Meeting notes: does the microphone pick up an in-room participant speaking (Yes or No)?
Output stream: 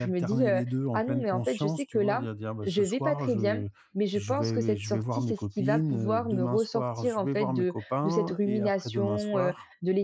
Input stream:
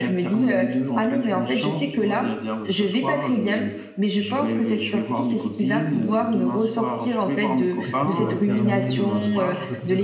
Yes